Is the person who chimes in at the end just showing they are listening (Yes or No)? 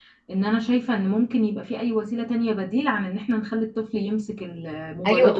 No